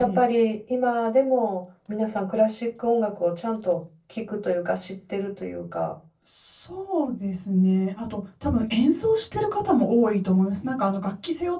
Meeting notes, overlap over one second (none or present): none